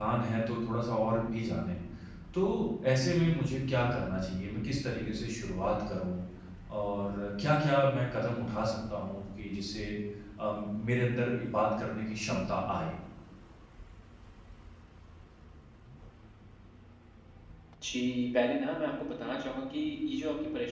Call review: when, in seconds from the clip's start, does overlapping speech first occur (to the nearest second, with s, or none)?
none